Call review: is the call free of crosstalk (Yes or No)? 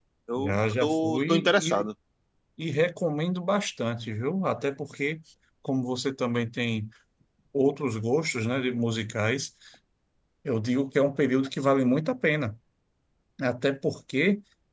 No